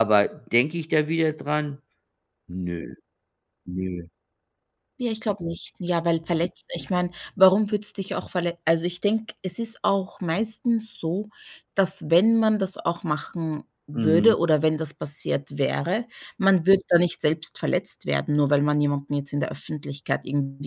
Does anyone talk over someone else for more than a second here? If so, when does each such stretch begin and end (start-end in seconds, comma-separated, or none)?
none